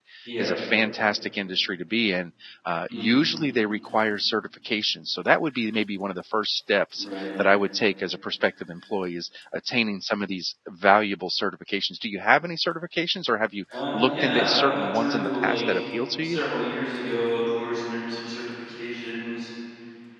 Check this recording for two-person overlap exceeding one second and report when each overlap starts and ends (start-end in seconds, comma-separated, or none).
13.7-15.8